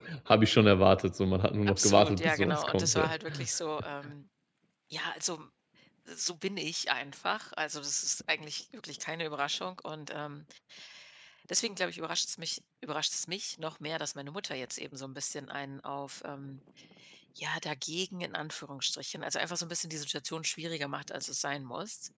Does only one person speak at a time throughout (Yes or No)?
No